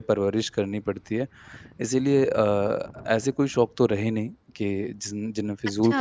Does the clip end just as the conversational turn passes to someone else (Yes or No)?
No